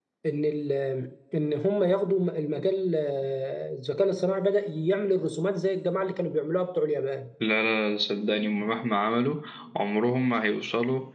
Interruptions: none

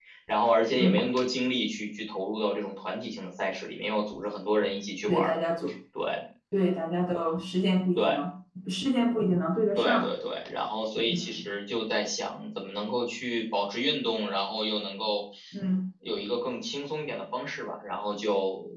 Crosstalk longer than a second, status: none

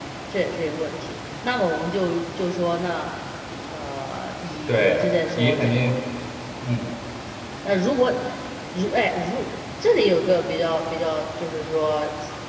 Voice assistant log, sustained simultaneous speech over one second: present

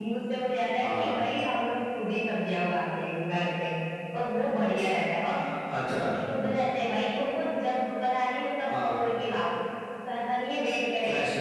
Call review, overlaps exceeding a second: none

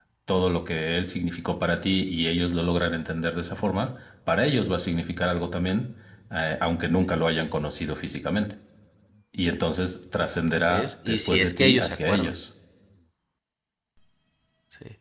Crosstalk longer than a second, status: present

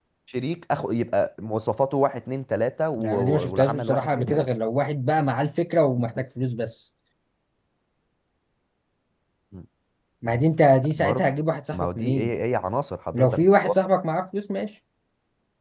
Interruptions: present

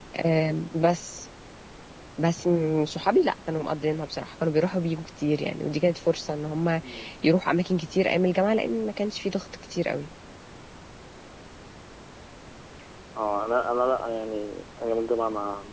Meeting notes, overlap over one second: none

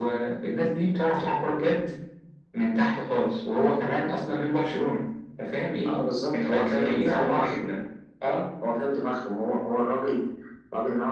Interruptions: present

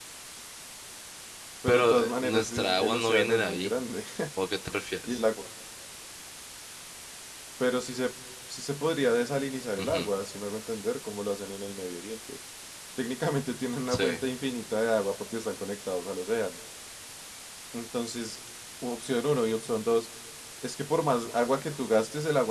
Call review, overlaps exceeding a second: present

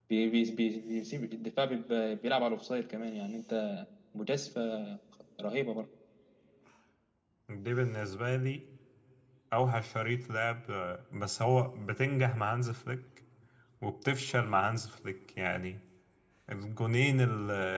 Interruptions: none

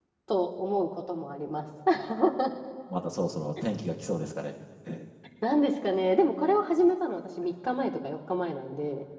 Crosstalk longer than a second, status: none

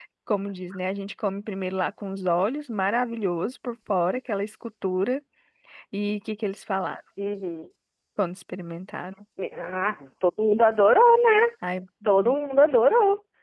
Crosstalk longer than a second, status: none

